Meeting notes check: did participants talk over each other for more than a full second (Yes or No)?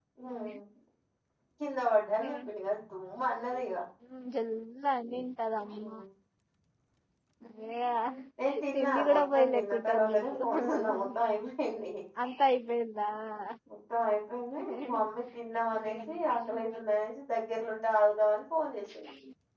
Yes